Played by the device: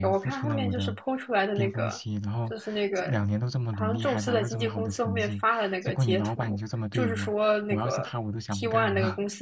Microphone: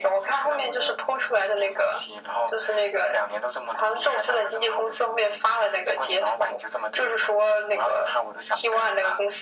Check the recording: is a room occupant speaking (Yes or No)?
No